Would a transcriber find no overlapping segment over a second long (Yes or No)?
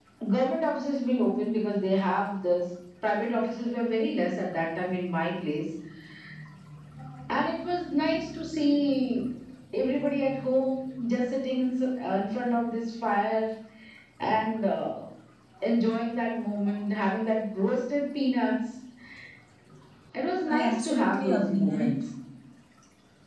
No